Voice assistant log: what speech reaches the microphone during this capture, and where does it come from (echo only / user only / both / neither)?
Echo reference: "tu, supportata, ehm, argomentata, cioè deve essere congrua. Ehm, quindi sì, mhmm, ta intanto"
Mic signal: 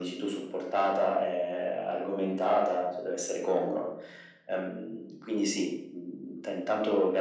echo only